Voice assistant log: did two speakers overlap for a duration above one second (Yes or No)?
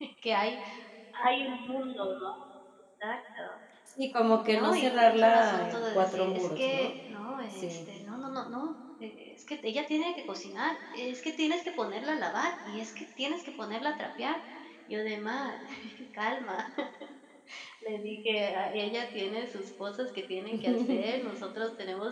Yes